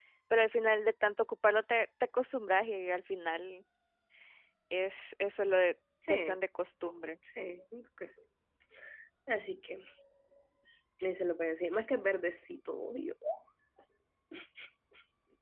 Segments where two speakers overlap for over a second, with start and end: none

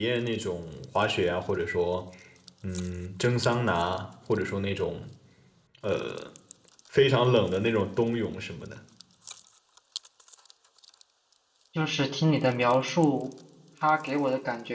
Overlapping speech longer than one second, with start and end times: none

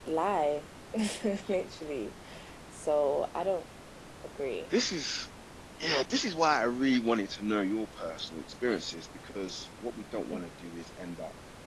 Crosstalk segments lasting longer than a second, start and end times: none

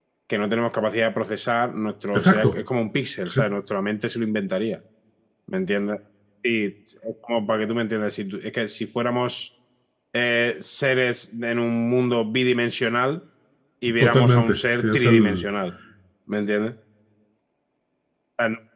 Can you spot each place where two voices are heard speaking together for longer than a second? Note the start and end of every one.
14.0-15.4

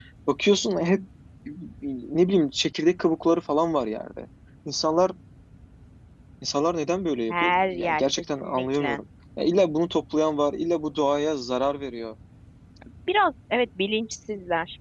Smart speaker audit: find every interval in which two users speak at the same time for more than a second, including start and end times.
7.3-9.0

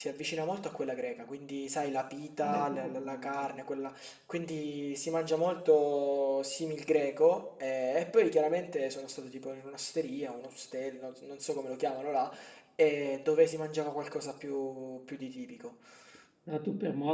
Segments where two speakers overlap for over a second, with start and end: 2.4-3.6

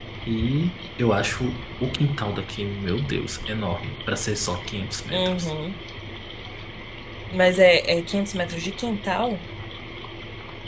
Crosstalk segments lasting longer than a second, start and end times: none

